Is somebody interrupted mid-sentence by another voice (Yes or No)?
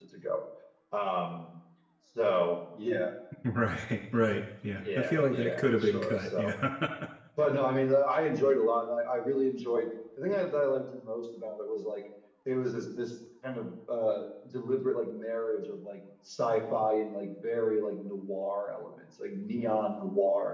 Yes